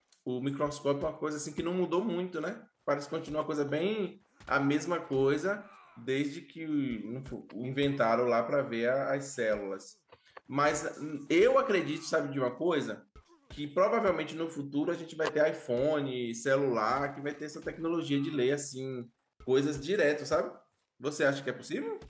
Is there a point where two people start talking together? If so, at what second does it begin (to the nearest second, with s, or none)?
none